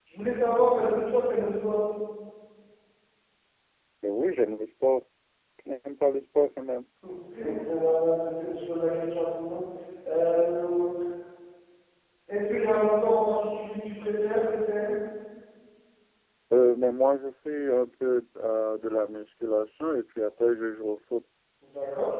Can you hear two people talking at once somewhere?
No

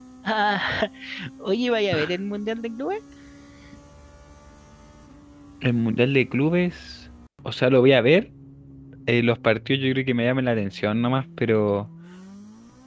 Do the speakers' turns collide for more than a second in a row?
No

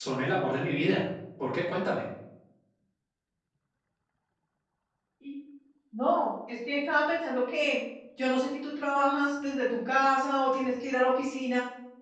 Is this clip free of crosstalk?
Yes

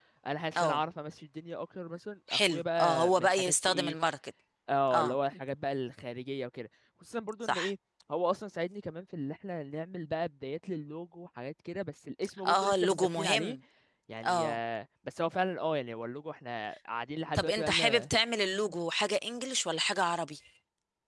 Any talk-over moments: Yes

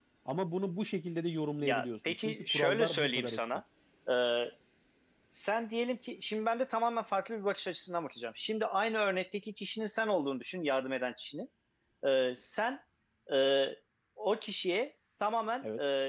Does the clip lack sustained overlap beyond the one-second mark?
No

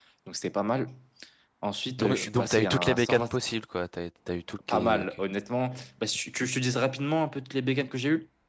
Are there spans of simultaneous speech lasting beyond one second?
Yes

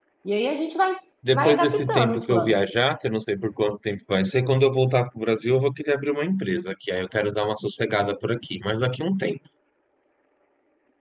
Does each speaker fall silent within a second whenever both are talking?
No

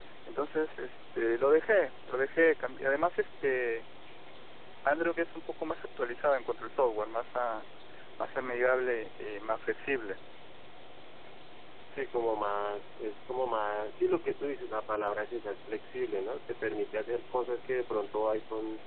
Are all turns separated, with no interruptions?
Yes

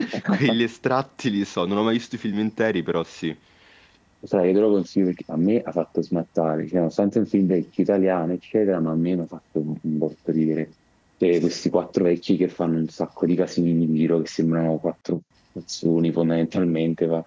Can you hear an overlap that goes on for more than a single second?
No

